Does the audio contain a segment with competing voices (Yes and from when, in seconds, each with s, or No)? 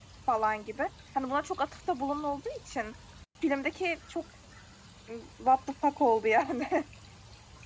No